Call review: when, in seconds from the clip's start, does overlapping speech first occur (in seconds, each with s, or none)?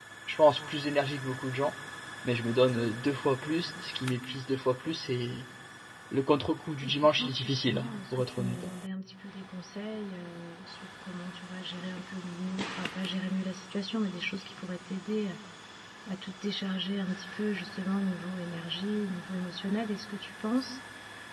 6.8 s